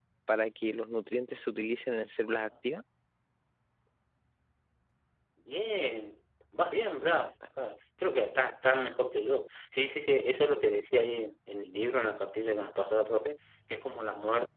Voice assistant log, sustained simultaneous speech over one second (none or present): none